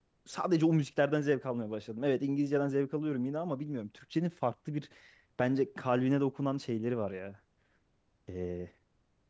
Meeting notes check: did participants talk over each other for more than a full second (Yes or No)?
No